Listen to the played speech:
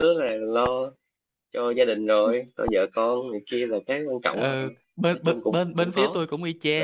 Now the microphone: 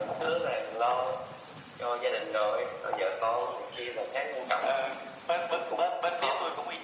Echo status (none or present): present